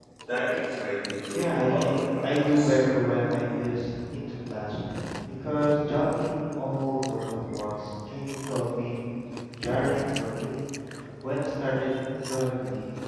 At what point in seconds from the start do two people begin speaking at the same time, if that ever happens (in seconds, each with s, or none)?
1.3 s